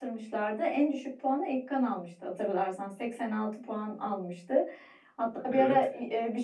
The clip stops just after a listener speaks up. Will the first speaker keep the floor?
Yes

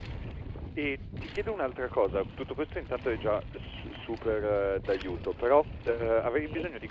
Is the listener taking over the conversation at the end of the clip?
No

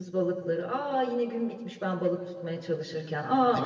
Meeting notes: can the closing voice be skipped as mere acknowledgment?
No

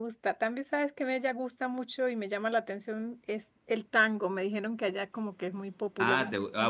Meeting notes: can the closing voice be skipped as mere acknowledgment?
No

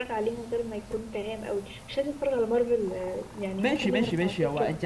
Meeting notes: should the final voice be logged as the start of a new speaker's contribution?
Yes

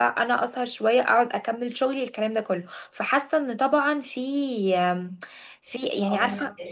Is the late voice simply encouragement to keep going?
No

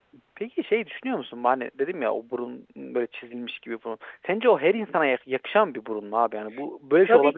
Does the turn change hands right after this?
Yes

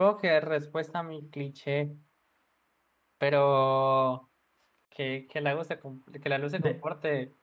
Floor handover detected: No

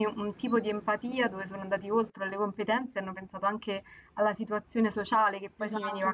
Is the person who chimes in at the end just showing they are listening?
No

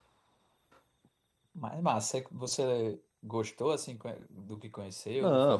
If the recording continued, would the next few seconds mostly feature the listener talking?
Yes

